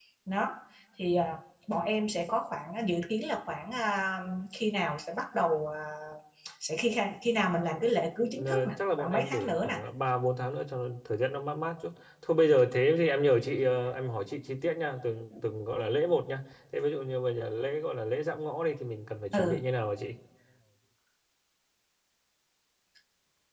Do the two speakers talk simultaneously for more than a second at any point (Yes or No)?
Yes